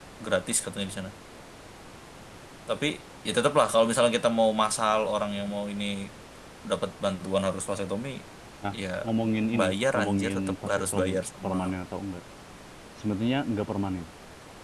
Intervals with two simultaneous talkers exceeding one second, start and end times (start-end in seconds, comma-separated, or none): 9.6-11.6